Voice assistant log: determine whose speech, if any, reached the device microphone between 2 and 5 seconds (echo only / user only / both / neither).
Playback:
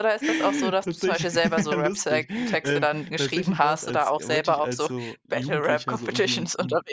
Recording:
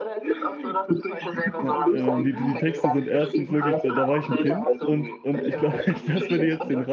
both